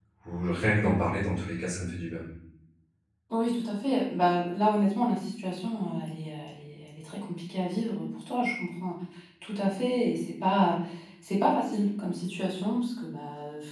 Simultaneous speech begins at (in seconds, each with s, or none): none